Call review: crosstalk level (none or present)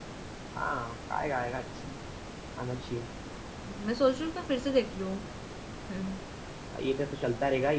none